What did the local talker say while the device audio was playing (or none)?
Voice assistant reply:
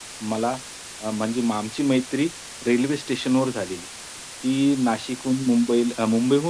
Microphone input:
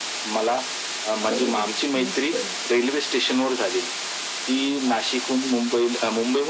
अरे वाह! मस्त आहे.